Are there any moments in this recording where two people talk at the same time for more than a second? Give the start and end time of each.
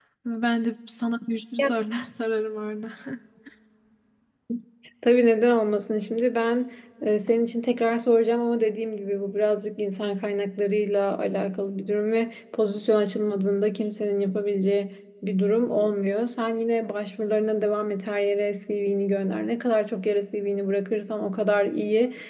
none

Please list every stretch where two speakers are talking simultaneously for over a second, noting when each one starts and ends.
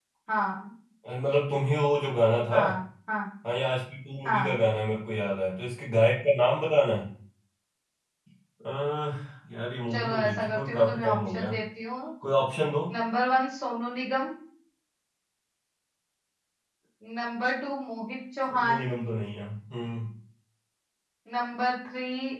9.9-11.5

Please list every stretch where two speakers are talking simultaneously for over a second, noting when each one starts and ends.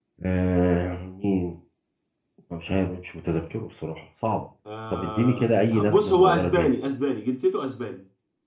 4.9-6.7

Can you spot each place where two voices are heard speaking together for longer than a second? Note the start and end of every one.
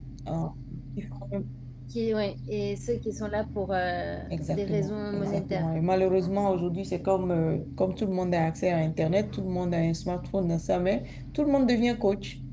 4.3-5.7

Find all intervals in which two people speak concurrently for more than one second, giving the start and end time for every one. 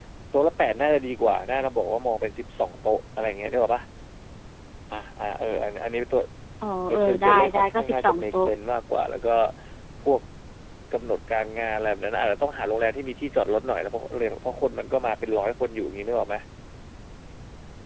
6.9-8.5

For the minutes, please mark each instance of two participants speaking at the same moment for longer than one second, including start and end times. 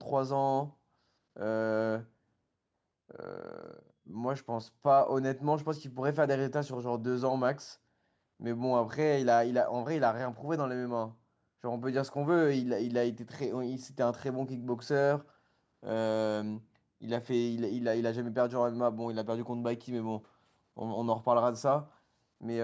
none

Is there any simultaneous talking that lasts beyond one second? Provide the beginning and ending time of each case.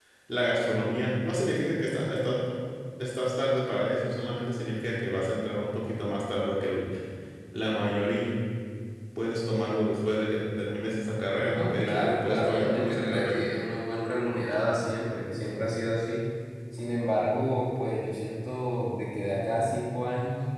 11.5-13.4

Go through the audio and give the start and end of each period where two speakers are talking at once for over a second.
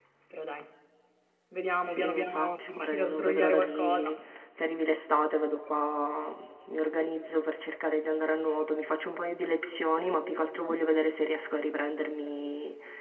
2.0-4.1

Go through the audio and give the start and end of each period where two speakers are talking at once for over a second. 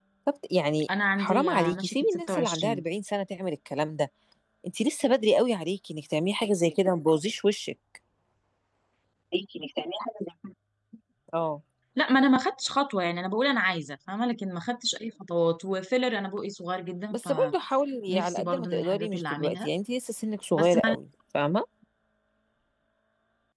1.2-2.8, 18.1-19.7

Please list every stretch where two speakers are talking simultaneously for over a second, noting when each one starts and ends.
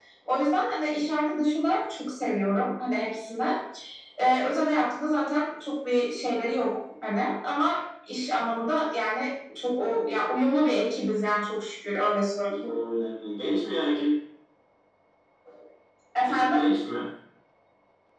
none

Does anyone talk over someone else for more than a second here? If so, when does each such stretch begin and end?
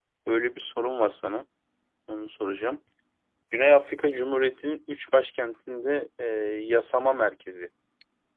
none

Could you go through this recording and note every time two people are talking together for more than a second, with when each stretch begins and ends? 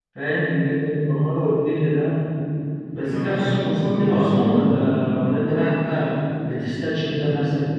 3.0-4.6

